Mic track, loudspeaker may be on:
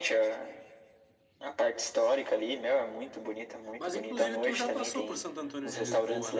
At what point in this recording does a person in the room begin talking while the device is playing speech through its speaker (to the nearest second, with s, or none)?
4 s